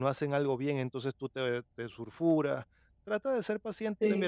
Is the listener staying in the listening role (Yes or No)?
Yes